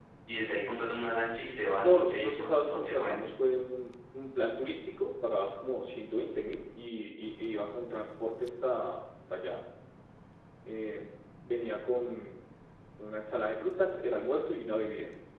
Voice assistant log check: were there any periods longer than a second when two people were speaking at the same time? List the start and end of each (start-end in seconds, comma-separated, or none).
1.8-3.2